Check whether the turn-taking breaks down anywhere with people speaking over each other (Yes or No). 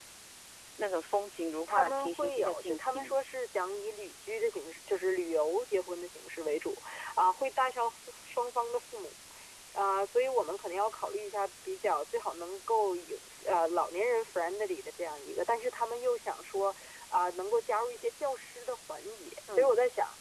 Yes